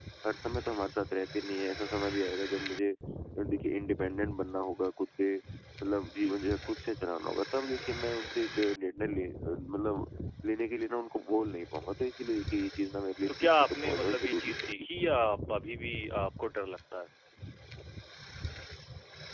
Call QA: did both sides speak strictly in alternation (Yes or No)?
No